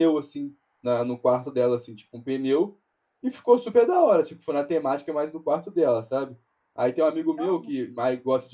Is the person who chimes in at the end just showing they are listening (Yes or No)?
Yes